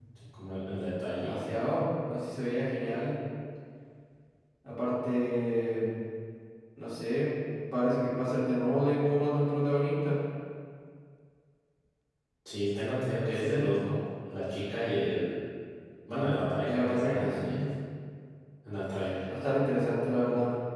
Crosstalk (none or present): present